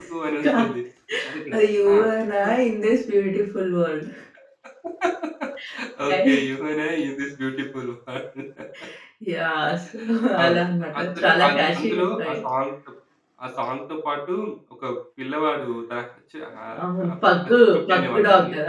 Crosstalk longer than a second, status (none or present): present